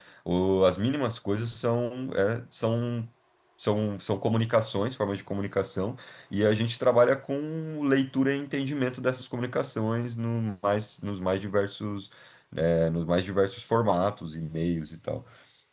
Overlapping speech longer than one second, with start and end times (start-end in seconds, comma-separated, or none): none